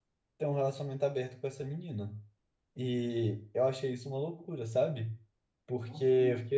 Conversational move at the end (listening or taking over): listening